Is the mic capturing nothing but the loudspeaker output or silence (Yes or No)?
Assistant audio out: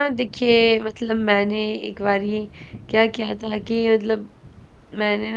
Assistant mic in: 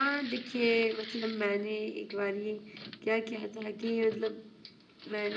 Yes